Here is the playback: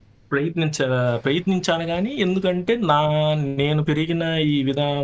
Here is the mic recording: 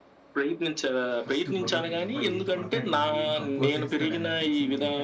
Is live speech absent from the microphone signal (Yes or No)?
No